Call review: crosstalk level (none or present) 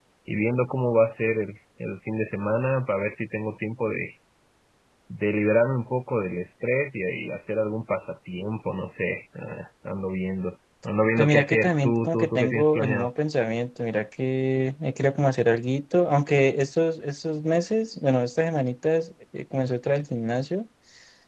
present